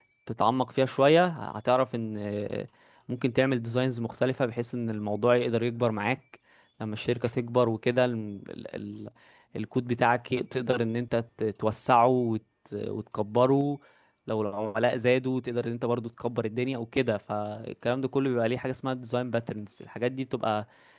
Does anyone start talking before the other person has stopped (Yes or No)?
No